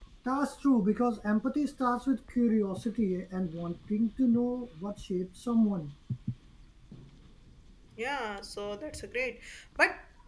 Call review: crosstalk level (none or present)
none